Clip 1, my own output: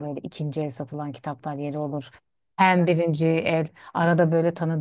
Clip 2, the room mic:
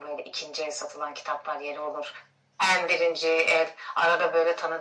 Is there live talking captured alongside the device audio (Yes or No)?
No